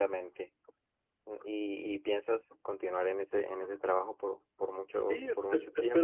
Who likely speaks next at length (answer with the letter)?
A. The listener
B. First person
A